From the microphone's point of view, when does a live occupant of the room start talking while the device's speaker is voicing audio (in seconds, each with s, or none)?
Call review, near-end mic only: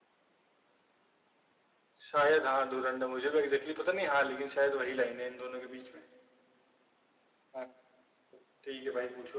none